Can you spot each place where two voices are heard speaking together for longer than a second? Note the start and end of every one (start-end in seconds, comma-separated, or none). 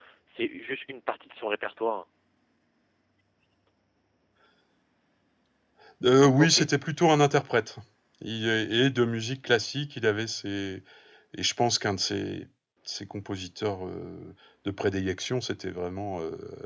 none